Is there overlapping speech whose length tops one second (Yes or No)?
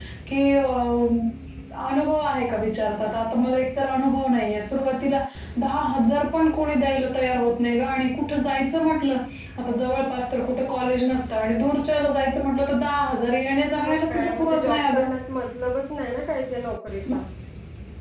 Yes